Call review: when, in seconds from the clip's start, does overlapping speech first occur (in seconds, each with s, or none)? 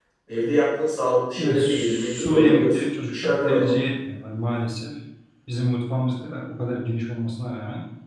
1.3 s